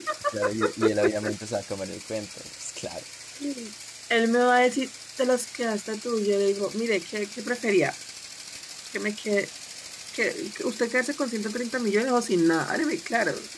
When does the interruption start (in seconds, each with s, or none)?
none